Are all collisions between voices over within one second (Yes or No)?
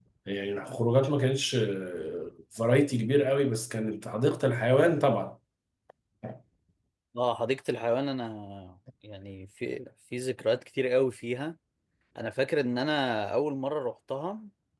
Yes